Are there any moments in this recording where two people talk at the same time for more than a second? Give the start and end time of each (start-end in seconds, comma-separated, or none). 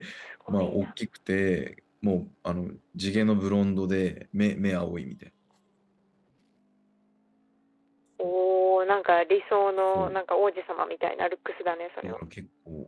none